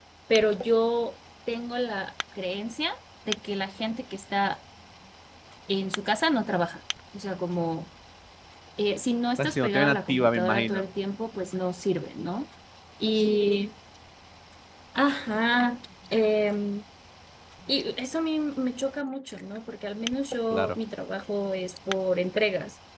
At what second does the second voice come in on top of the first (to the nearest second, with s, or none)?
9 s